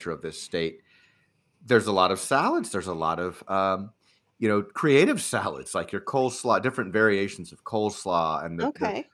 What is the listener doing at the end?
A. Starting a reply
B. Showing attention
B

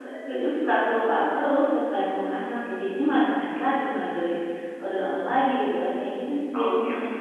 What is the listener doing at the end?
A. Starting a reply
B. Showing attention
A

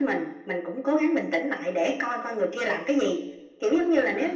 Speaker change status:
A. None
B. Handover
A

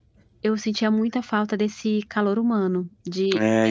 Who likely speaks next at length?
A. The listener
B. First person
A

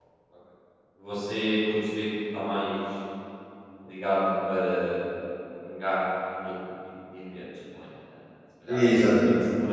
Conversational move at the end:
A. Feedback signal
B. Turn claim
A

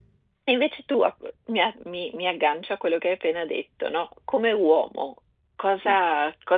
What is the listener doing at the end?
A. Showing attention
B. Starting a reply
A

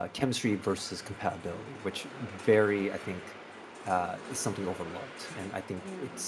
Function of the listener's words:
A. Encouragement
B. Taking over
A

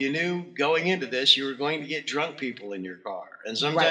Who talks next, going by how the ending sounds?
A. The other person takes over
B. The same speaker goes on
A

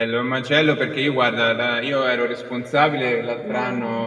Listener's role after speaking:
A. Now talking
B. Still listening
B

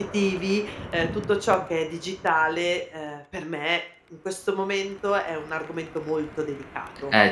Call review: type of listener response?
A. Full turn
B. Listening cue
A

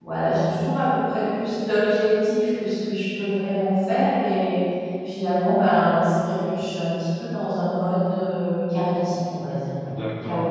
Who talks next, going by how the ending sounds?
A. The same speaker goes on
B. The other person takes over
B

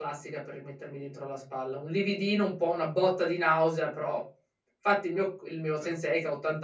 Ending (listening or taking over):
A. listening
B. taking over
A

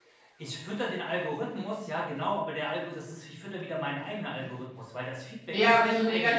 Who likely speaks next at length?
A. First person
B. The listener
B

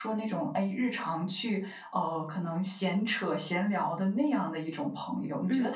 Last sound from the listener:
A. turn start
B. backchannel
B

